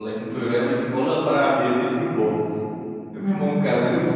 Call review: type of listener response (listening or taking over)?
listening